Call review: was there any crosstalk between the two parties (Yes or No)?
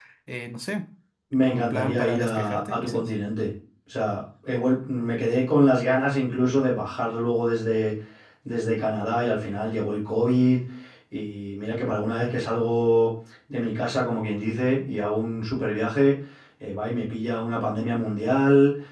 Yes